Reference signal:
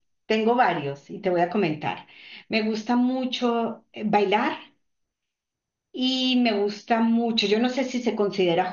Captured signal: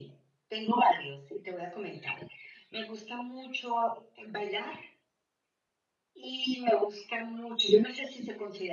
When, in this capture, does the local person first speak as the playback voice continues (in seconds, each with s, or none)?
none